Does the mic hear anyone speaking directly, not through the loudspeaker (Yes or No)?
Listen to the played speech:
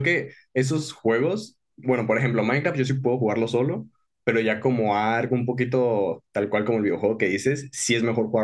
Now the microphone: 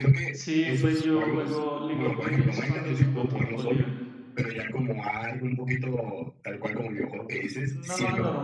Yes